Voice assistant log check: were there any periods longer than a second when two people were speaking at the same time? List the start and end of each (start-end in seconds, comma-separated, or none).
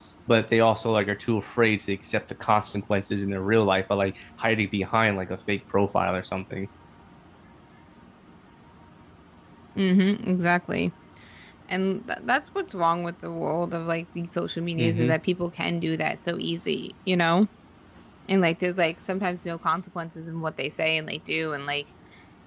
none